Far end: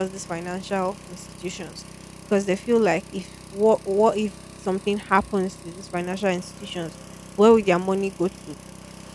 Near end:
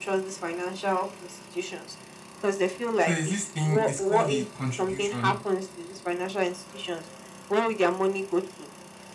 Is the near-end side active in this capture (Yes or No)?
Yes